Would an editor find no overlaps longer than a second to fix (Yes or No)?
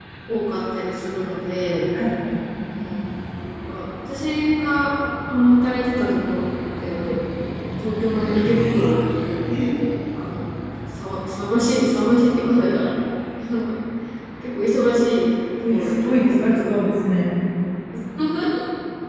No